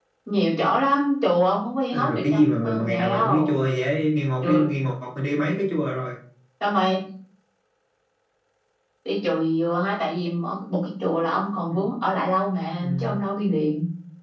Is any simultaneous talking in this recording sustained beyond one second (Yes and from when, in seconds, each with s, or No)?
Yes, from 1.9 s